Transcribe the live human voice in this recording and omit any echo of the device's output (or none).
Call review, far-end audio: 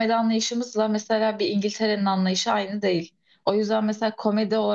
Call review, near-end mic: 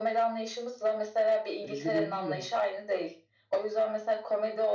E, bizde böyle değil ama.